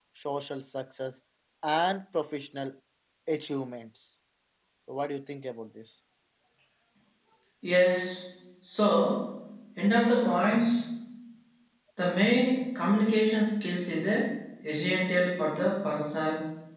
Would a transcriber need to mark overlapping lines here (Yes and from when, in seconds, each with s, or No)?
No